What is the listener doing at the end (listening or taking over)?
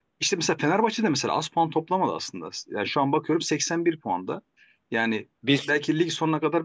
listening